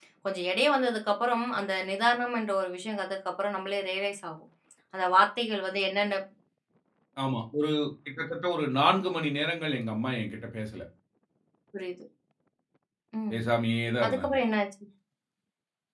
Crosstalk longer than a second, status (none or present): none